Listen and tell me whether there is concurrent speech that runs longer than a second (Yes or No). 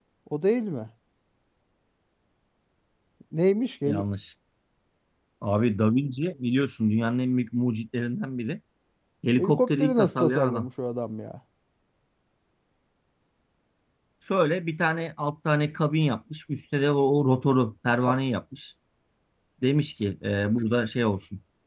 Yes